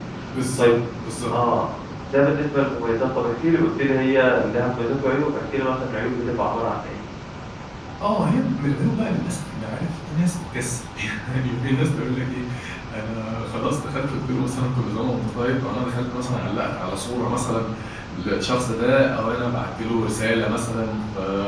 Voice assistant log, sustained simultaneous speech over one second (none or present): none